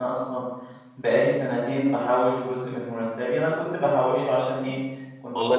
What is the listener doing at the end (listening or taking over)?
listening